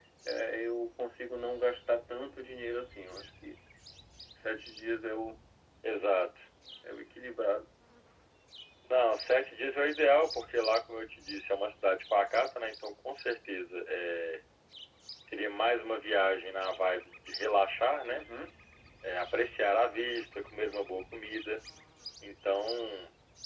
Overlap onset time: none

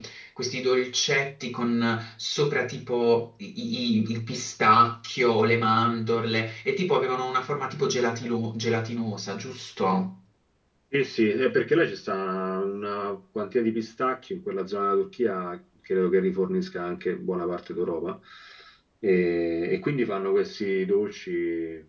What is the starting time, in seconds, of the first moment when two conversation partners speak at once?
none

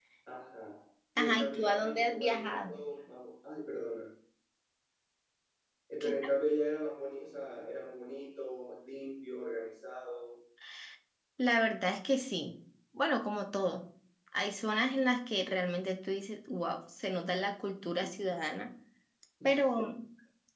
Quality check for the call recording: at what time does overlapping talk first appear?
1.2 s

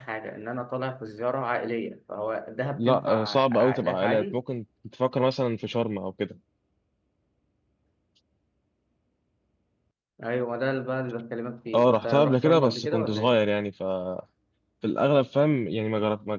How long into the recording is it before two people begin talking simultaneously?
2.8 s

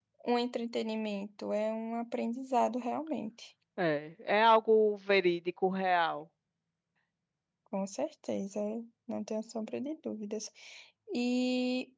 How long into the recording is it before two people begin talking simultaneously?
none

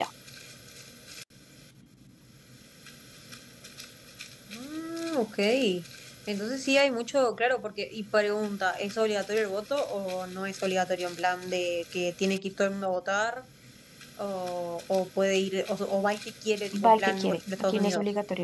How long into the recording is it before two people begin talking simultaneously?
16.7 s

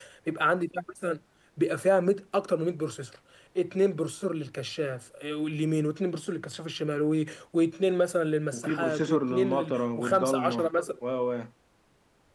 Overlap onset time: 8.5 s

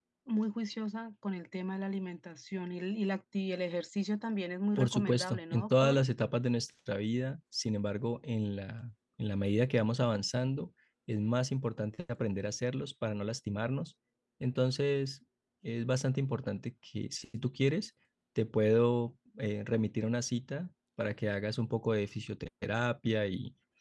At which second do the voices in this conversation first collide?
4.8 s

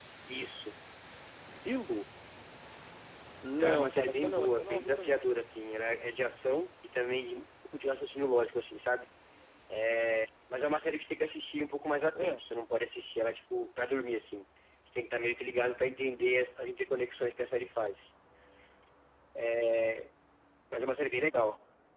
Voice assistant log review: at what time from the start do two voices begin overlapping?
3.6 s

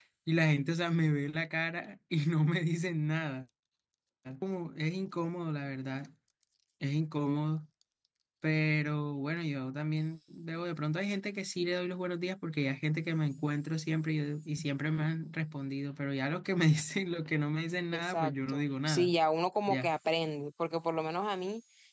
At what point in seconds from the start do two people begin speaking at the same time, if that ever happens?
17.9 s

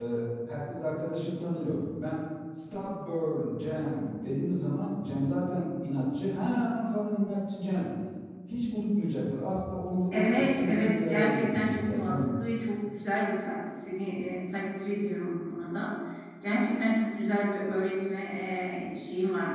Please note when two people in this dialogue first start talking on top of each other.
10.1 s

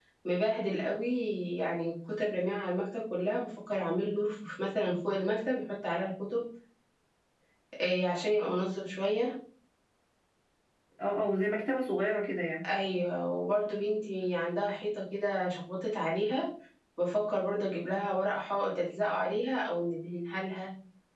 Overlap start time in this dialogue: none

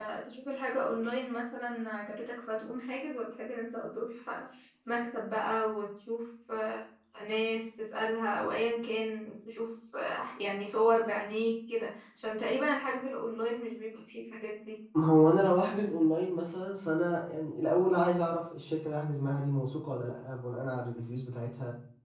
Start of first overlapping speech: none

